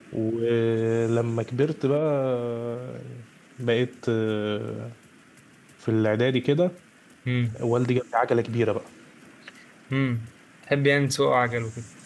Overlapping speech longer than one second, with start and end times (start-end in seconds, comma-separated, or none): none